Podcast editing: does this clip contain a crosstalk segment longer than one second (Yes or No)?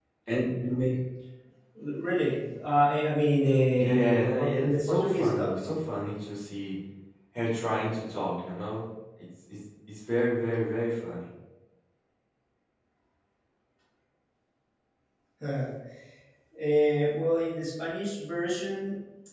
Yes